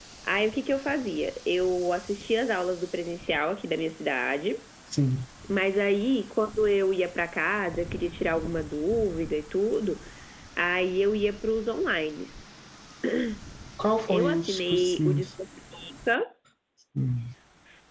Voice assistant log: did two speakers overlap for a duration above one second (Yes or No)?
Yes